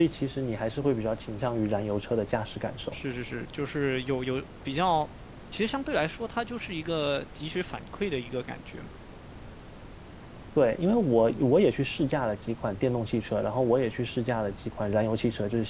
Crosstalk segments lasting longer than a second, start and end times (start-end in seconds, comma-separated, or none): none